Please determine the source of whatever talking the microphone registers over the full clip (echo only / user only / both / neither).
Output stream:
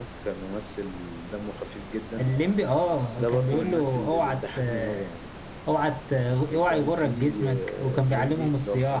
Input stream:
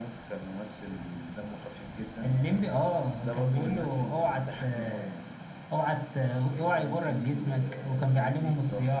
echo only